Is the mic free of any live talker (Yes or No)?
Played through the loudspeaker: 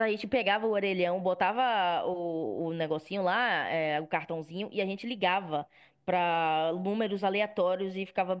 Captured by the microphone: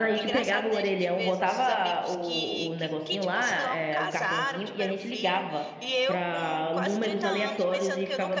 No